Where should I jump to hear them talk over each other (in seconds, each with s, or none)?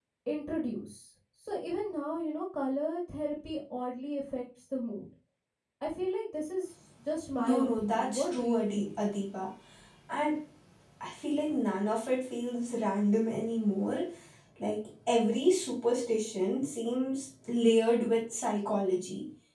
7.4 s